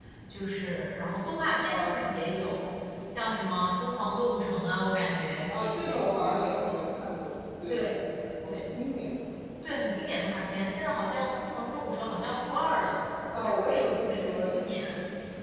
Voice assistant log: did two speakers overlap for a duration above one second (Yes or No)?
Yes